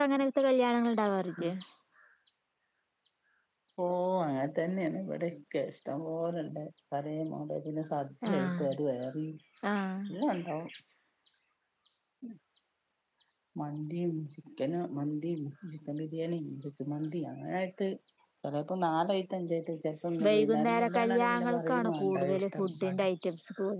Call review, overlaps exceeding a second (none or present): present